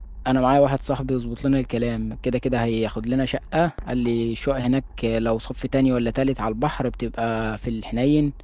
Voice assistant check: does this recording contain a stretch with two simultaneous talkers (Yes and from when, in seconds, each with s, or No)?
No